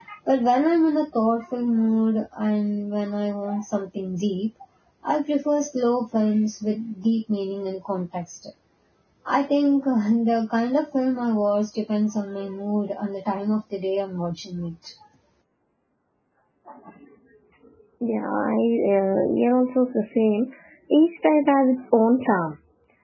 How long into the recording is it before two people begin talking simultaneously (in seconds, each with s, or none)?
none